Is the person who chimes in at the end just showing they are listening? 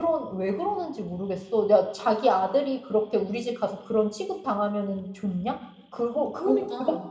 Yes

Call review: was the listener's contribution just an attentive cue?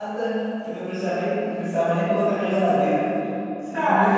No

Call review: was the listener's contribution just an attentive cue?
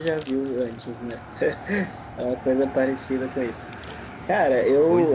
Yes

